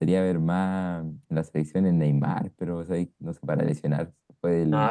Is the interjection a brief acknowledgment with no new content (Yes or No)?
Yes